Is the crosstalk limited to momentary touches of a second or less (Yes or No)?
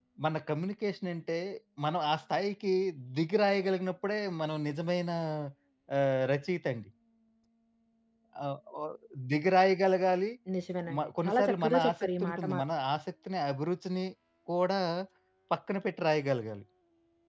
No